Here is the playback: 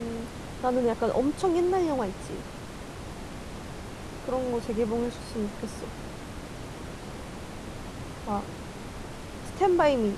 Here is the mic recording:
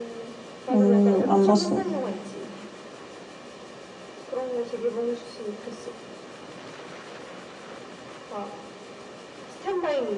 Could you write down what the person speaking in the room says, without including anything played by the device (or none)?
음, 안 봤어.